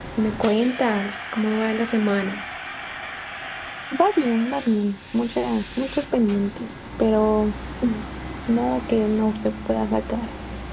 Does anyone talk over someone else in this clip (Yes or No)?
No